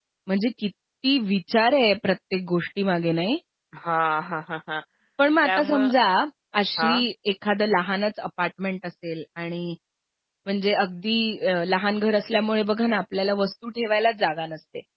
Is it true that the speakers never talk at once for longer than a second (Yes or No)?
Yes